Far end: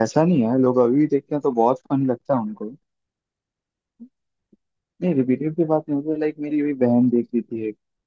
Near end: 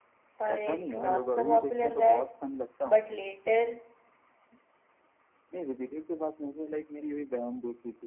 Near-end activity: present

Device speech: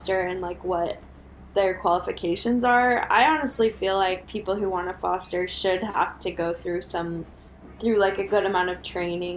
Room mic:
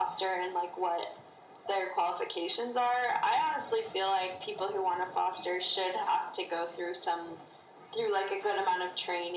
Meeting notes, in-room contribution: none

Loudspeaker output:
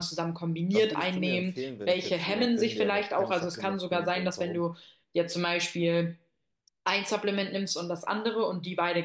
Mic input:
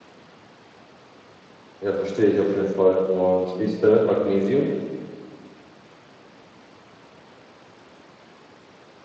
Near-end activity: present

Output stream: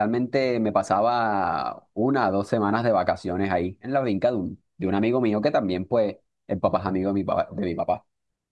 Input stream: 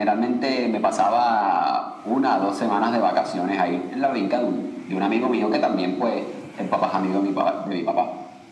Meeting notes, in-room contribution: none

